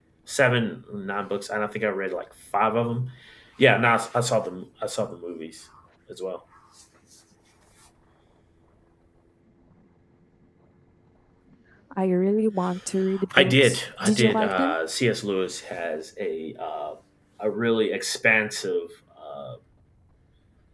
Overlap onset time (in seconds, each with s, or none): 13.3 s